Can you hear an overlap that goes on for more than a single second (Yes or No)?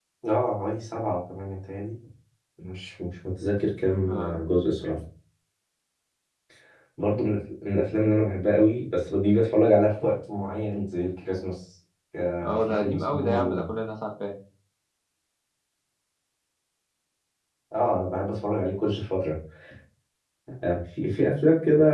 Yes